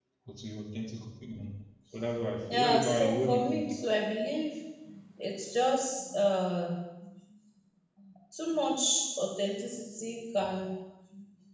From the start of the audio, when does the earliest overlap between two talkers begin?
2.2 s

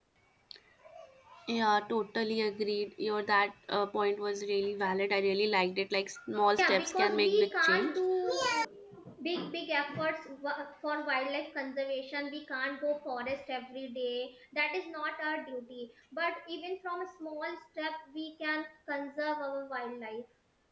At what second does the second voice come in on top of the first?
6.6 s

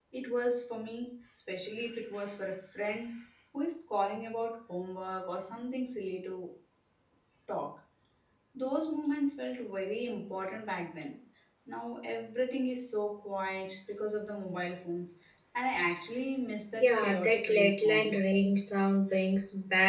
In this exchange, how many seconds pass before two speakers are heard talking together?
16.8 s

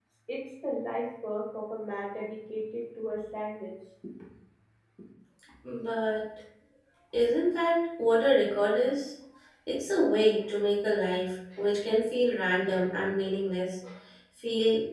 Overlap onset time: none

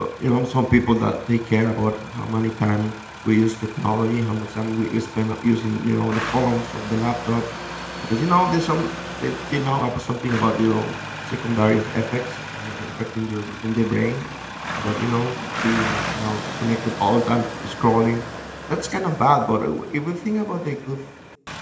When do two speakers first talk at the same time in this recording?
none

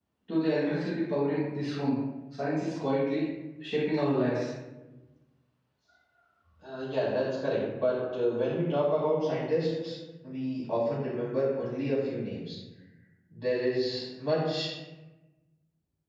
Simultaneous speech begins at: none

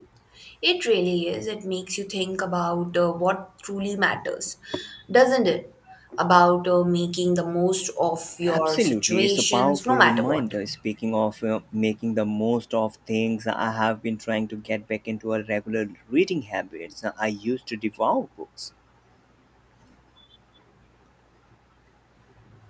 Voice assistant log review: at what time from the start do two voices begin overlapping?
8.5 s

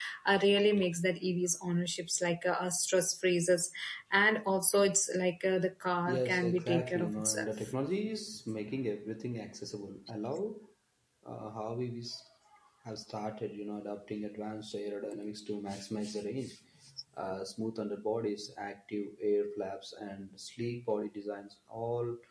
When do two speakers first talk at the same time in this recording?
6.1 s

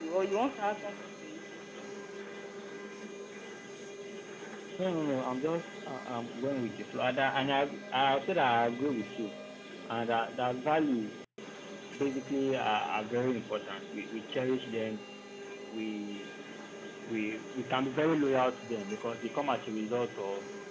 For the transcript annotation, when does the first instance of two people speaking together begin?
none

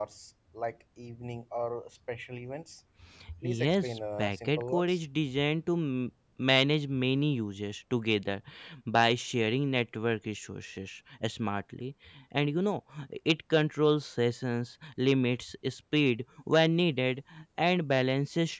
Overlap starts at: 3.4 s

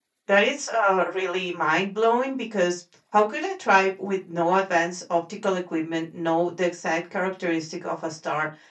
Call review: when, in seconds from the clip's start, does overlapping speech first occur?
none

